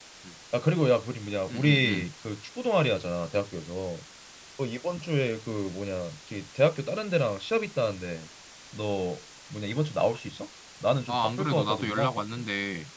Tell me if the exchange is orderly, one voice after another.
No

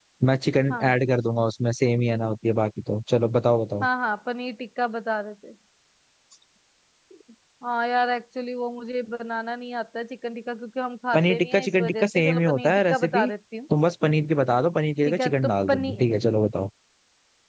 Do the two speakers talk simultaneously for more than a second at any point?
Yes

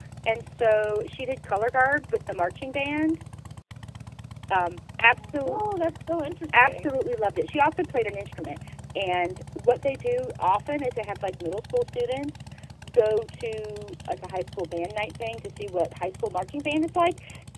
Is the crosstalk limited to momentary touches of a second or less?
Yes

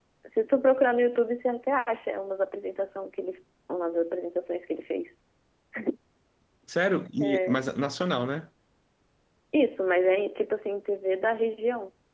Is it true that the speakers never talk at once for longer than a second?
Yes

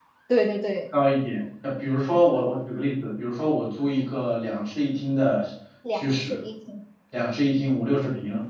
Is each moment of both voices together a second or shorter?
Yes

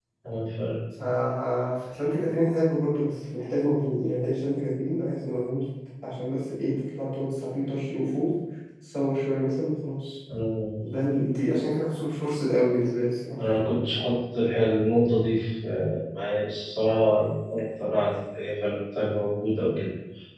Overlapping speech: No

